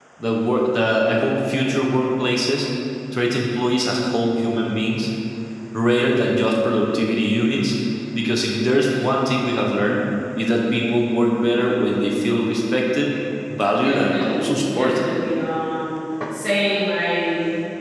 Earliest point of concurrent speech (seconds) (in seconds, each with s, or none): 13.7 s